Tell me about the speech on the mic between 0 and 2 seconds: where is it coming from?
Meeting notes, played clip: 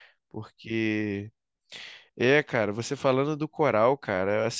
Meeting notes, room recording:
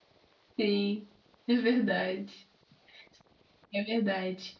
user only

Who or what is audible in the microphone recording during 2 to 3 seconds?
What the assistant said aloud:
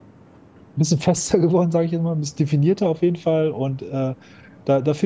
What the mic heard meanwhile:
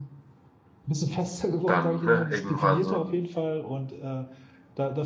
both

